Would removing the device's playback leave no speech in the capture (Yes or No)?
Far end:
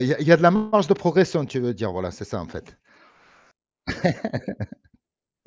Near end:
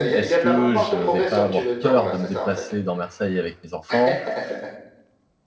No